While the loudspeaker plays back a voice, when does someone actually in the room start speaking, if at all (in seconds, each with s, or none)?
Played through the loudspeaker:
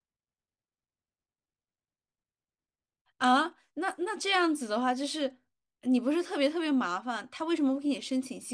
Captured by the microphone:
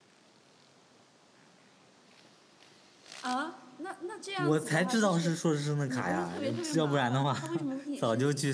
4.3 s